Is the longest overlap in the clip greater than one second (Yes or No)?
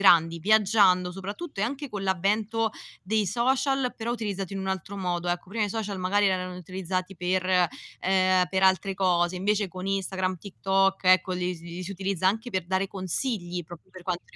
No